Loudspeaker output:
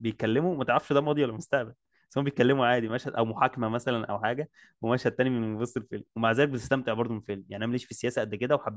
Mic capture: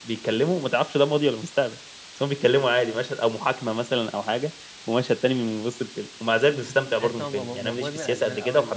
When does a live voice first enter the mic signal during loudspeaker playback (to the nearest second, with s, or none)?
7 s